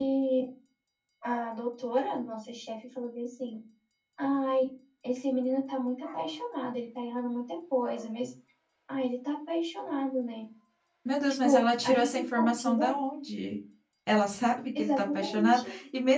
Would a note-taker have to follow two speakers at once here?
Yes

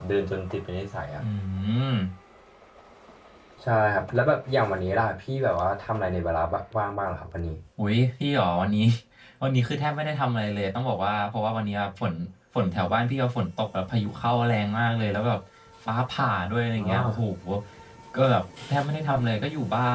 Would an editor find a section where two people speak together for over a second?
No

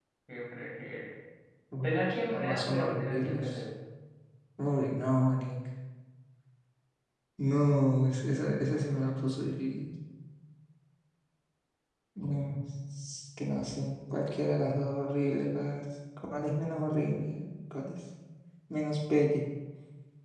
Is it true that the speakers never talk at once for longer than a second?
No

